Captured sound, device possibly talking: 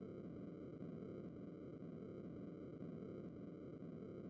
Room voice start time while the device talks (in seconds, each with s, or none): none